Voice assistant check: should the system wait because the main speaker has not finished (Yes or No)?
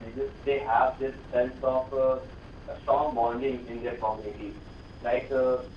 Yes